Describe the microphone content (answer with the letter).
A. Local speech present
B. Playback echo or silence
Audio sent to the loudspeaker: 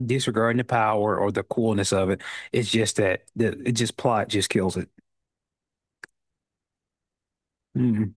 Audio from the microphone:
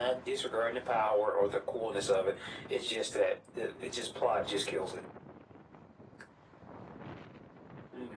B